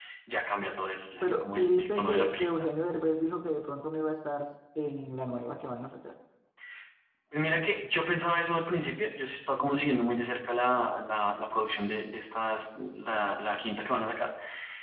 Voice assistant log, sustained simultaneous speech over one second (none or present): present